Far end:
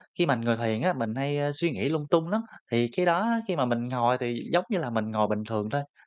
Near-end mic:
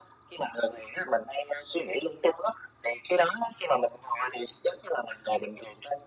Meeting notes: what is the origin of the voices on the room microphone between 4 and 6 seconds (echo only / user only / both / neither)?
echo only